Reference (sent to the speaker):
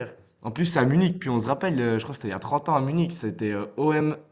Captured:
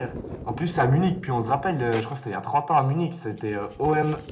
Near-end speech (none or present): none